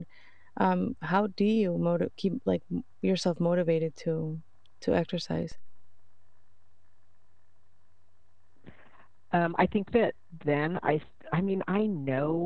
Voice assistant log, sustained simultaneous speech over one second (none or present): none